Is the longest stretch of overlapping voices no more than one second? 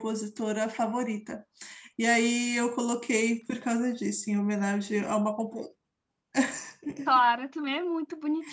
Yes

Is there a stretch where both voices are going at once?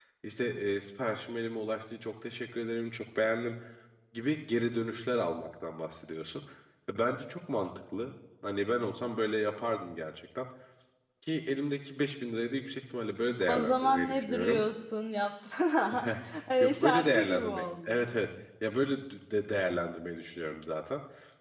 Yes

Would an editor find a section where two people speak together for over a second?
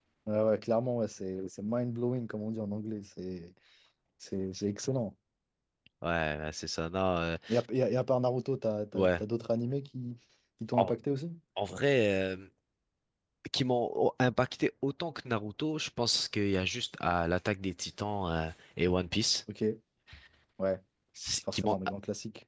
No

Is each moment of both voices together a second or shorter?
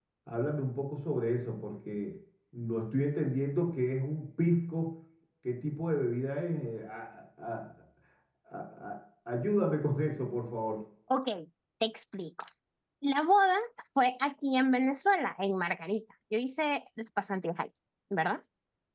Yes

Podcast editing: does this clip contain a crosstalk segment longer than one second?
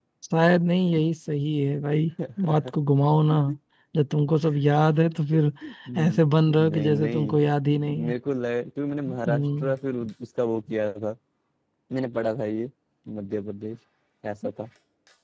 Yes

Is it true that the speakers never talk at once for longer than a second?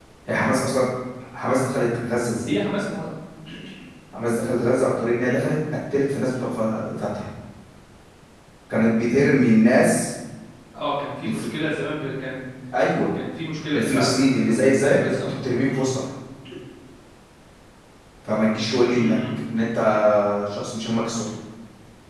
No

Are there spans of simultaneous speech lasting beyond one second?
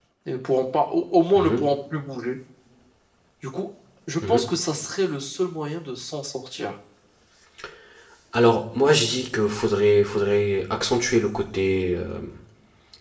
No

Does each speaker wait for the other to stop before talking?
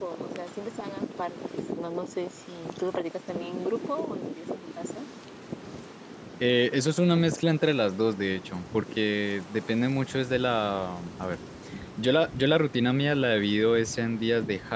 Yes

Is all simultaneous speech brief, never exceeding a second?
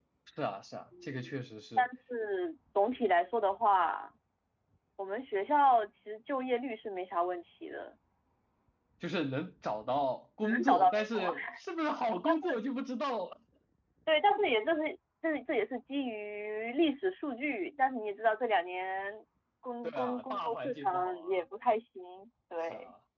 No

